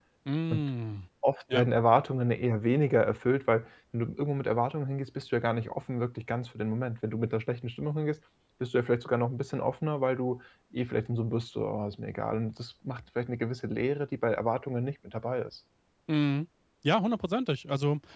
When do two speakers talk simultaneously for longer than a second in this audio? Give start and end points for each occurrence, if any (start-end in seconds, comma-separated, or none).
none